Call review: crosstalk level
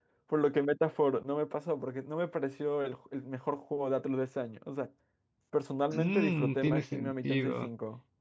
present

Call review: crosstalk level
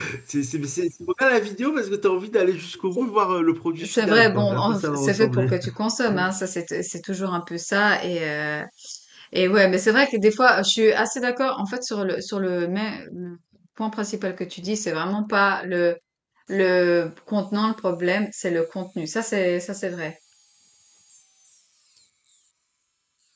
present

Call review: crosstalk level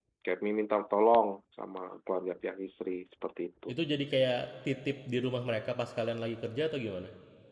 none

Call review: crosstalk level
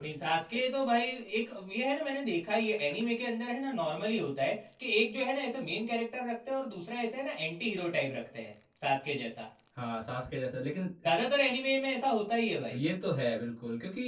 none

